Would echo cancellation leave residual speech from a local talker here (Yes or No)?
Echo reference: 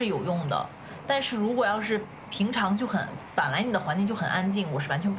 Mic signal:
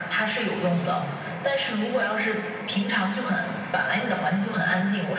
No